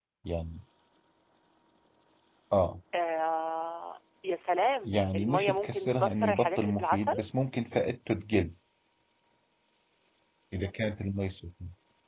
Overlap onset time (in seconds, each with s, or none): 4.8 s